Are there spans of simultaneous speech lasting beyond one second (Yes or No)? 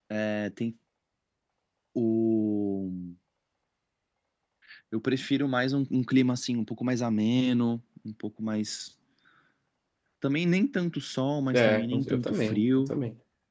Yes